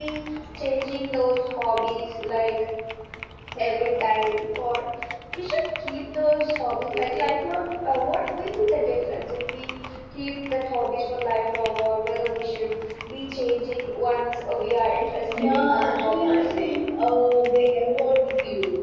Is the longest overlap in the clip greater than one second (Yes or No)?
Yes